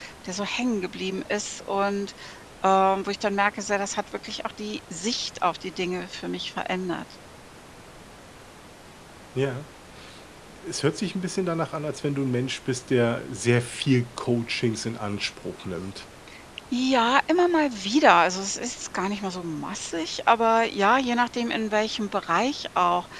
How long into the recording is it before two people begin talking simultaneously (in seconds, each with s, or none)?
none